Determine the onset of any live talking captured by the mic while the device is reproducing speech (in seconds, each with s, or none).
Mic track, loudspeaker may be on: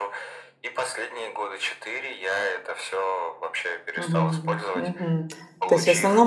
4.0 s